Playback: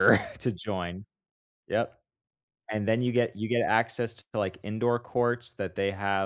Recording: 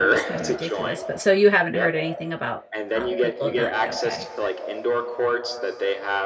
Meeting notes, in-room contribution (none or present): present